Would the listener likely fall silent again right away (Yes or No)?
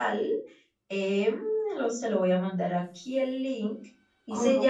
Yes